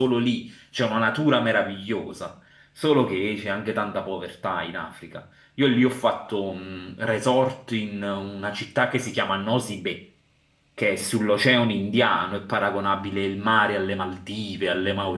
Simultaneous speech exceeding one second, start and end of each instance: none

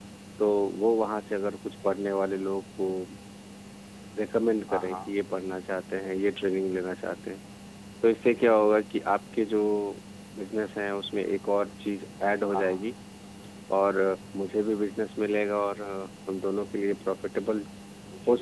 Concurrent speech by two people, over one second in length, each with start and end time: none

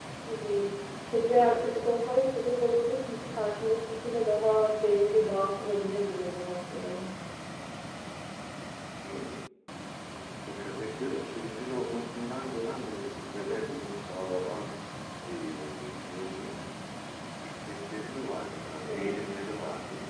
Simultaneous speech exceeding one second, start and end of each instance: none

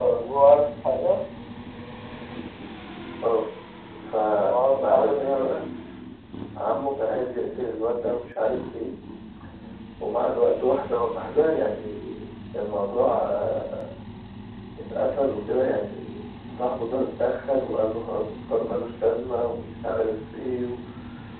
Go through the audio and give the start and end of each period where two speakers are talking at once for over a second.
4.4-5.6

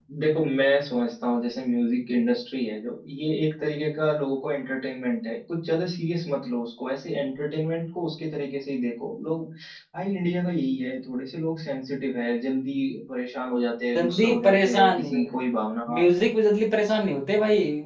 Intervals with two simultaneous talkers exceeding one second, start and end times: 13.9-15.2

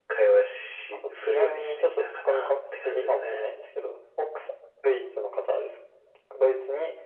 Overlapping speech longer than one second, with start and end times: 0.9-3.4

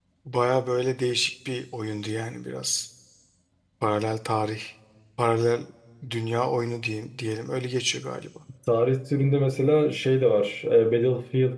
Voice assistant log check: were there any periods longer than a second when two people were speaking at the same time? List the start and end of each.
none

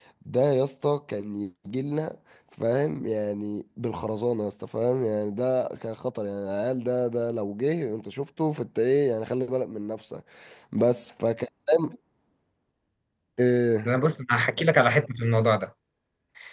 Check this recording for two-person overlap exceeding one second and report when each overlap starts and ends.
none

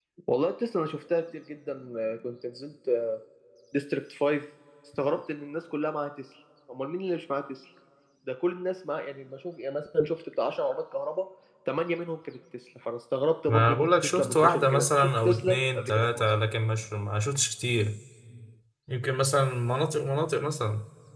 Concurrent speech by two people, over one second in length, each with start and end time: 13.5-16.3

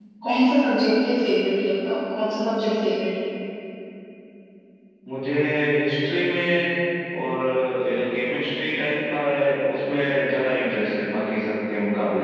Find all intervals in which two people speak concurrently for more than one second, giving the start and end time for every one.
none

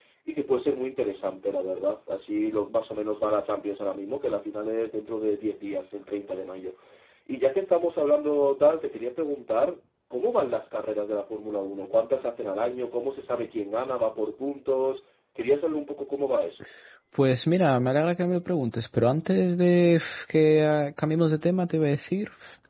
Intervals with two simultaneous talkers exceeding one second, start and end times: none

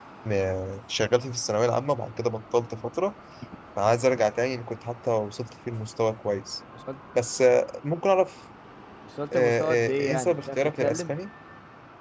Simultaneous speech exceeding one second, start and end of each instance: 9.3-11.2

